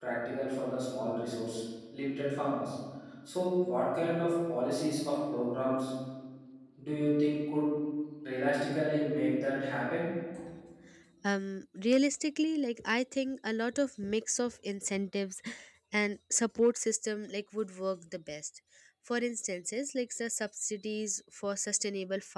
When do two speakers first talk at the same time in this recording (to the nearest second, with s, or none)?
none